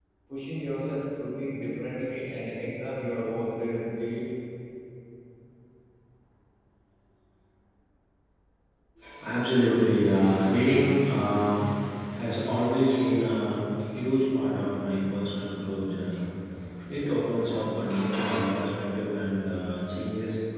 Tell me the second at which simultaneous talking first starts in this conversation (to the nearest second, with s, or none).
none